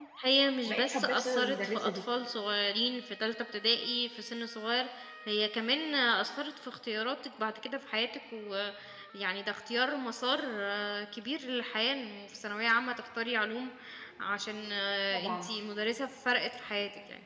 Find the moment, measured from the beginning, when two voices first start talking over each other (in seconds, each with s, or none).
0.7 s